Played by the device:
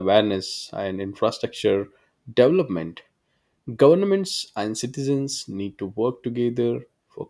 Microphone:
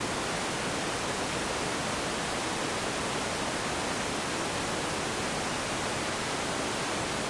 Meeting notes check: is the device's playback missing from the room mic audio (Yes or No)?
Yes